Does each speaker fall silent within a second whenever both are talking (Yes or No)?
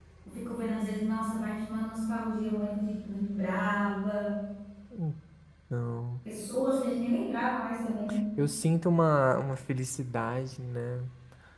Yes